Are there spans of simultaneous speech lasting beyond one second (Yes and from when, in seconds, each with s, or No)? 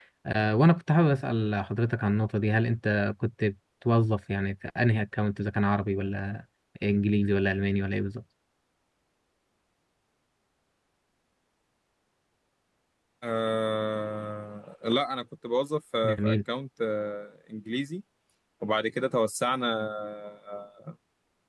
No